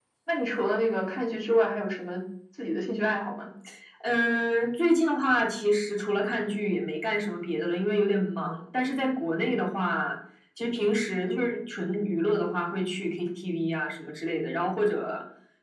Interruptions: none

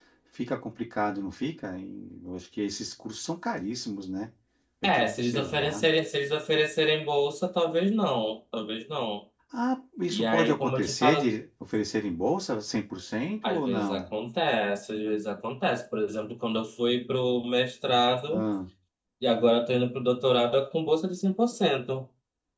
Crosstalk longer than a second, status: present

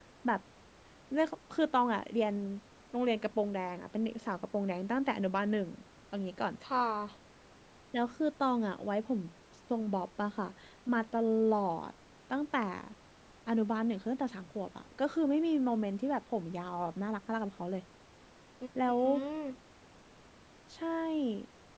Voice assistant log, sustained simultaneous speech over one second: none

